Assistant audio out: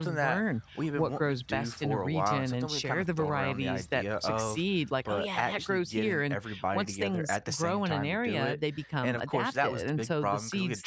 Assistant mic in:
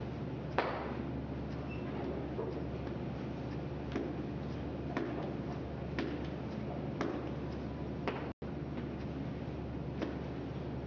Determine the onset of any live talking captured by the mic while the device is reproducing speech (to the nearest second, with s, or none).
none